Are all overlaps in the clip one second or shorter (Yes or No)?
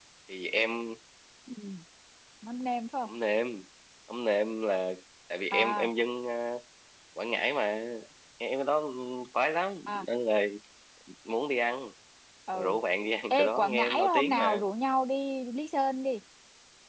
No